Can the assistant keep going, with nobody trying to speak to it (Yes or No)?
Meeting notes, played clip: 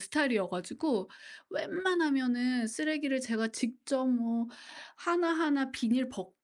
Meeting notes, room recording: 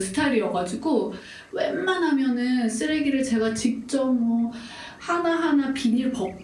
Yes